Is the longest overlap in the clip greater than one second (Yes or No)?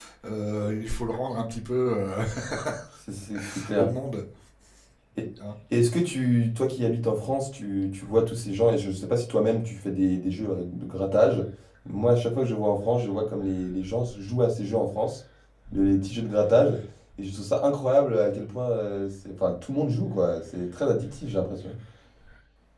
No